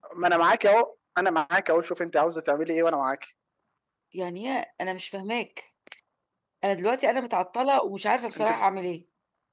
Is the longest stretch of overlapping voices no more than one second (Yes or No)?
Yes